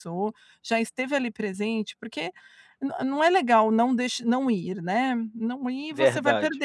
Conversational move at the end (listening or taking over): listening